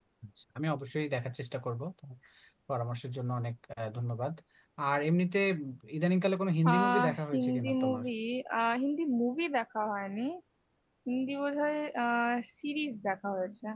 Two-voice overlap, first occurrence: 6.7 s

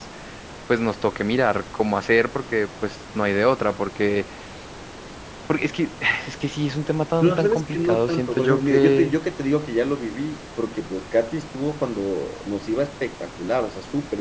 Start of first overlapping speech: 7.2 s

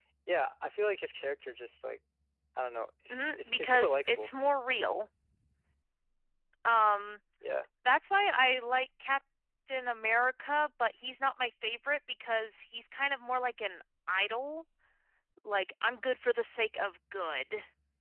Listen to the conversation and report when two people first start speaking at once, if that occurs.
3.1 s

